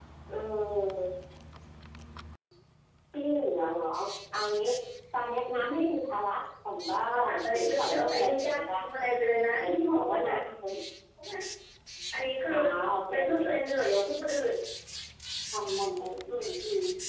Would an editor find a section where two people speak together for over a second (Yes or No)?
Yes